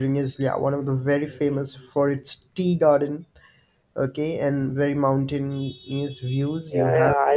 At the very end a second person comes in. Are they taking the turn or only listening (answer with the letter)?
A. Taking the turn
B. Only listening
A